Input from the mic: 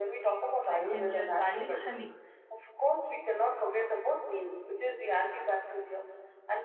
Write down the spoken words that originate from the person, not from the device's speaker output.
like ginger garlic honey

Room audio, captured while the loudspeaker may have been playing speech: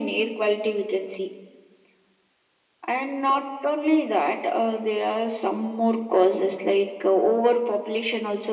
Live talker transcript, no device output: none

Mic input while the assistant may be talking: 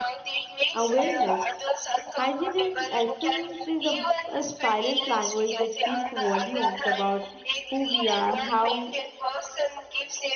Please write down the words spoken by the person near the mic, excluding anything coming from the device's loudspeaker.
awareness. Hygiene, in essence, is a, a silent language that speaks volumes about who we are, how

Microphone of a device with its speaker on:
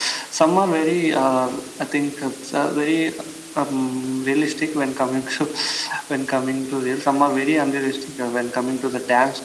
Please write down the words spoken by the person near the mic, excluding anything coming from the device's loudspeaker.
none

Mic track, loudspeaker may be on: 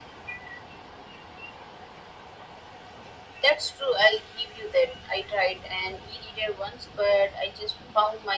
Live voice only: none

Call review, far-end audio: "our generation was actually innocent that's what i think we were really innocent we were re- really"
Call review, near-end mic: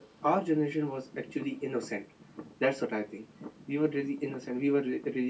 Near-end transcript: none

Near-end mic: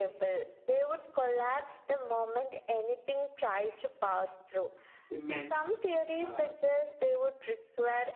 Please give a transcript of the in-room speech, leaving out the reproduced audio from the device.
immense uh,

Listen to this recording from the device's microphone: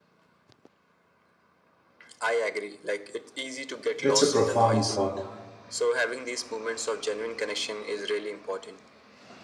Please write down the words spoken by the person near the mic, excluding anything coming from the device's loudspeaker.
That's a profound thought.

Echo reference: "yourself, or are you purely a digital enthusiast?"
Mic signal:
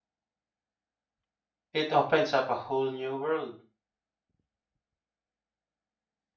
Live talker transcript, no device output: it opens up a whole new world.

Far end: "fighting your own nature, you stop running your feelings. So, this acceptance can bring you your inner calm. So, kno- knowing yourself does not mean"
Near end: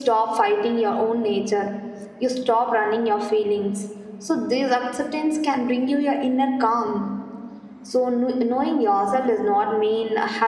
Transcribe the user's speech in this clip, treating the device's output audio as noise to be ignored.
none

